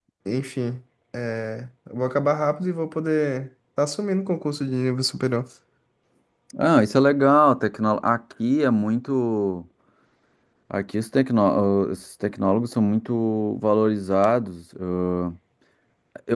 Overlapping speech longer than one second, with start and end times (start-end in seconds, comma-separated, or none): none